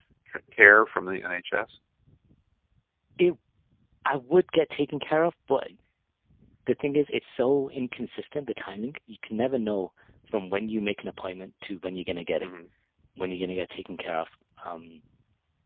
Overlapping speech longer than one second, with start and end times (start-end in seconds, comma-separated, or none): none